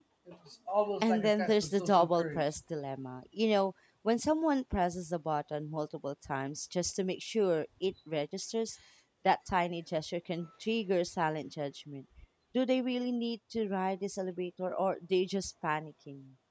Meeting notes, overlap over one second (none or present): present